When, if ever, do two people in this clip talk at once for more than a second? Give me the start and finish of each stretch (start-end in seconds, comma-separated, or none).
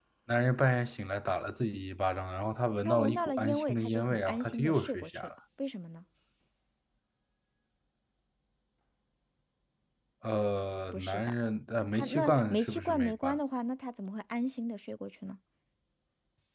2.9-5.3, 11.9-13.4